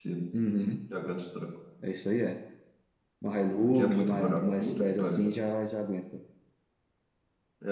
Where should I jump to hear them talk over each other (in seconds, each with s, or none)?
3.8 s